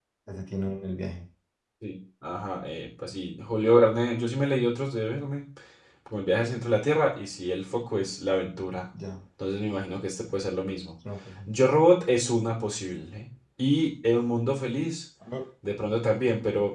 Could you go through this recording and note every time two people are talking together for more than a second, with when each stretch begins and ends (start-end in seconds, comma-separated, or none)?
none